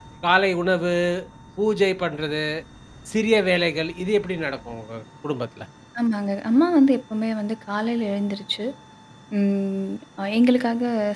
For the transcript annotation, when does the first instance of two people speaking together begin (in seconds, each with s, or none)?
none